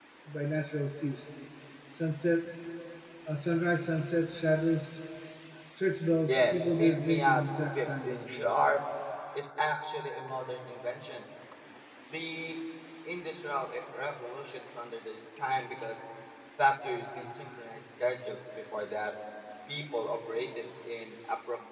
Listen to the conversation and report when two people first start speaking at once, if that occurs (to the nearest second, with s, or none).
6 s